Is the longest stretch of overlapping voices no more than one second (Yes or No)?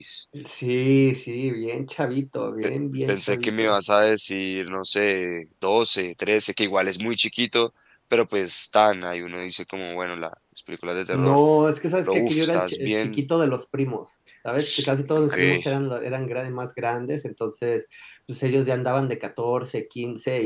No